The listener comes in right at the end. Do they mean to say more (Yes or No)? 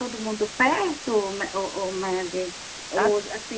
No